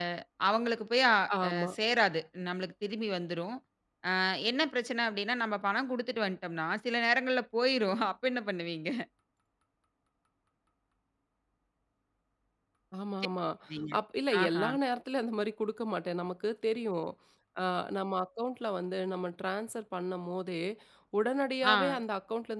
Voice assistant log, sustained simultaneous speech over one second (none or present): none